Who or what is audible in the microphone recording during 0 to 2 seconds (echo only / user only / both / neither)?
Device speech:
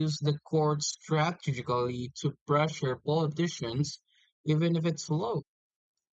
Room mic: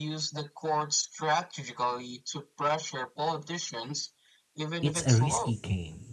echo only